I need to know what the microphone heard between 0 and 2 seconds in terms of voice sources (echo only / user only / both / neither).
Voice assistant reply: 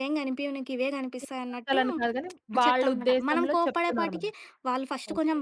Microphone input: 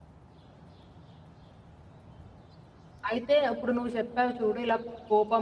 neither